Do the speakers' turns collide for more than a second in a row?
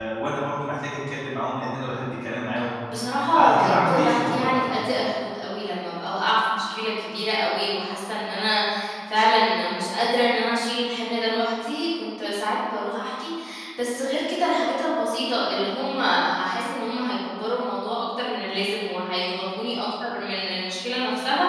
Yes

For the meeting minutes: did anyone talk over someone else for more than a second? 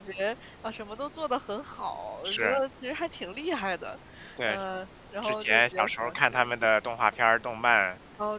Yes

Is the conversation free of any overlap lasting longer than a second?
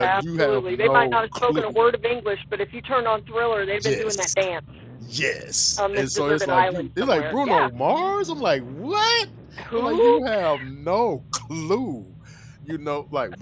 No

